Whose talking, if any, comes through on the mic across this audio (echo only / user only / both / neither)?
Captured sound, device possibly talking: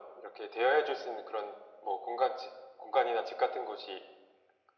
echo only